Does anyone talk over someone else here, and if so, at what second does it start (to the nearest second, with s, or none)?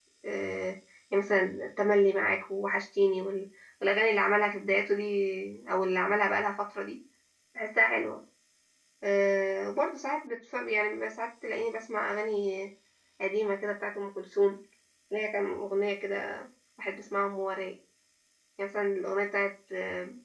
none